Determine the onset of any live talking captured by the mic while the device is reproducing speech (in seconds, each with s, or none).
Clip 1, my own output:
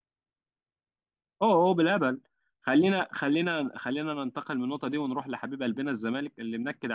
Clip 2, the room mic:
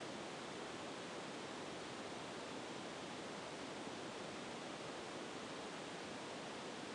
none